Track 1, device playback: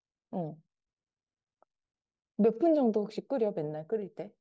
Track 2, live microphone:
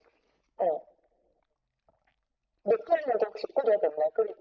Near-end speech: none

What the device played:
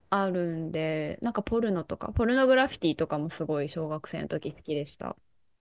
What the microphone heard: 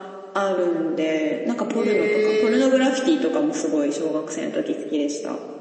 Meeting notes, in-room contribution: present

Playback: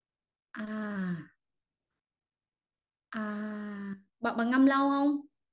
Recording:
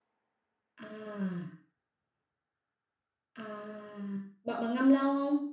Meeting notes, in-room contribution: none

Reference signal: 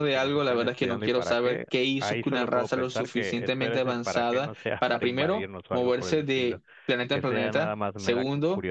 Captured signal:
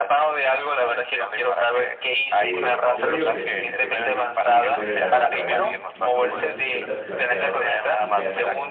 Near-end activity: present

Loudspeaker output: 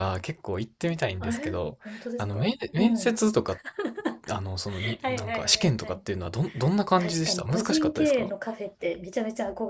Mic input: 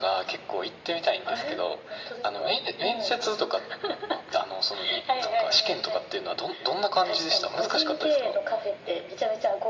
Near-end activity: none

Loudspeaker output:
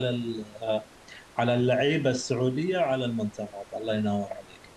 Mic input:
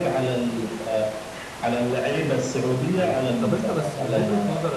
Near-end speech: present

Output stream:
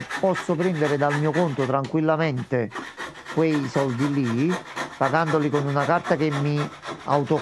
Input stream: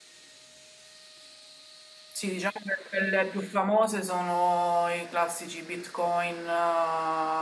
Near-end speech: present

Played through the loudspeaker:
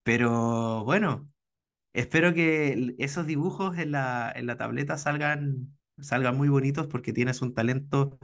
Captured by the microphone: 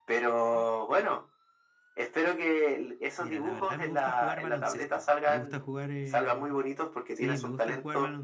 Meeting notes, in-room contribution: present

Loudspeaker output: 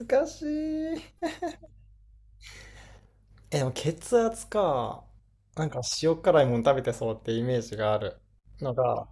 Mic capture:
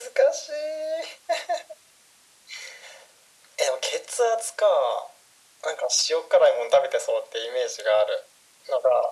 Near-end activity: none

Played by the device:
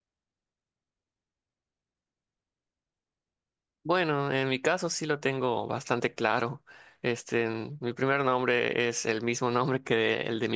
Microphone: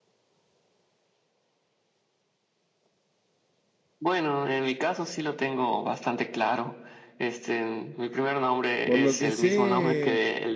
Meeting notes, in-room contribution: present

